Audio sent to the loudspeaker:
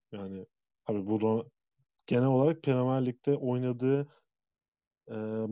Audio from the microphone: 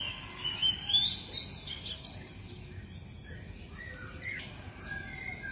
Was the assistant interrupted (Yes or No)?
No